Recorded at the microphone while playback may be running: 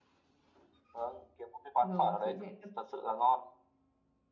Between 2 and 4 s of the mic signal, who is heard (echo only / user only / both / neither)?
both